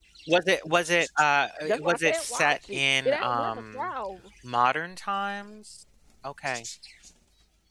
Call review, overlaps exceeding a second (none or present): present